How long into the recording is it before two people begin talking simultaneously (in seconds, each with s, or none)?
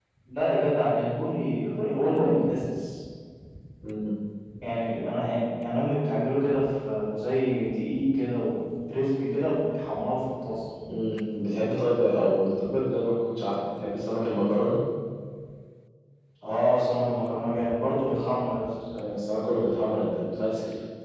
none